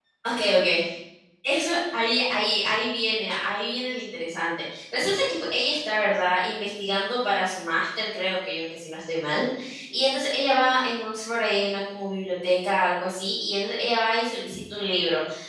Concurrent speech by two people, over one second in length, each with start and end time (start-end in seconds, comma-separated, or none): none